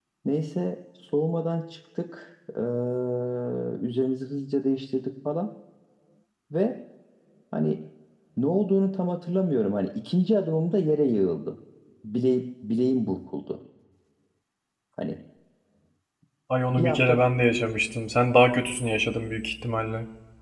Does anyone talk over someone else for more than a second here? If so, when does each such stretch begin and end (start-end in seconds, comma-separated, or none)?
none